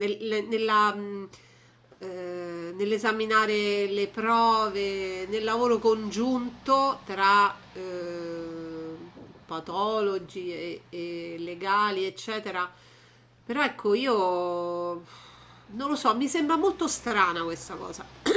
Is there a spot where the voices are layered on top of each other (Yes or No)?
No